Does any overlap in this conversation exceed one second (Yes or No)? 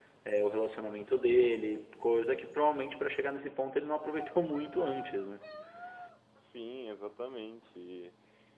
No